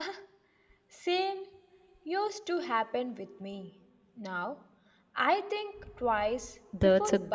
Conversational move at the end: taking over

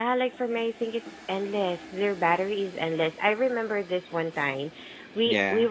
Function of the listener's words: listening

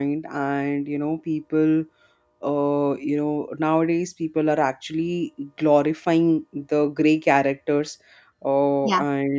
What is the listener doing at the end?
listening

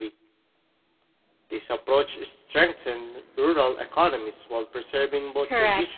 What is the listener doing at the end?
taking over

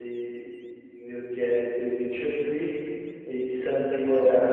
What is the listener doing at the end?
listening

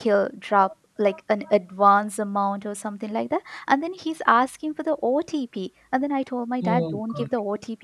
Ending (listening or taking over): listening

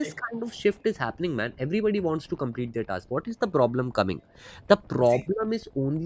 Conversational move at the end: listening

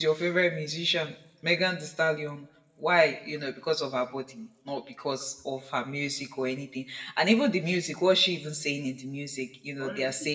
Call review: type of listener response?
listening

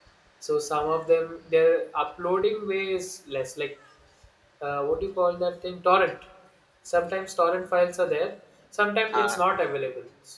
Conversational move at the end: listening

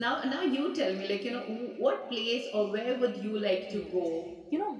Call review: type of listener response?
taking over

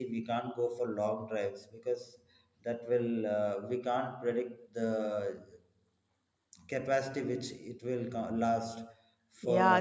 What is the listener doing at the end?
taking over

